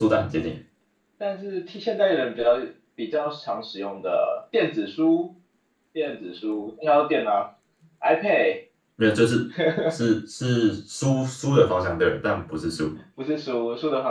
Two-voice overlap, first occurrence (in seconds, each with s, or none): none